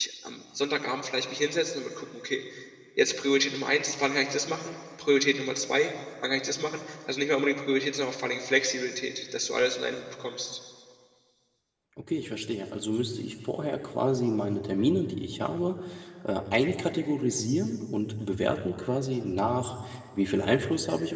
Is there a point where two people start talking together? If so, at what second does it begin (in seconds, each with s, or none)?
none